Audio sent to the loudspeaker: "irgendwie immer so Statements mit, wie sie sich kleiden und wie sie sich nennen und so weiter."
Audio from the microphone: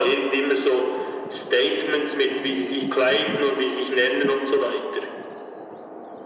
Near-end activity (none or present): none